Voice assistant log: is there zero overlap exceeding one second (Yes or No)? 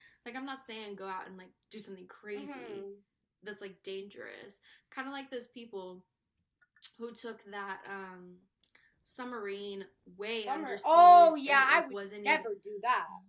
No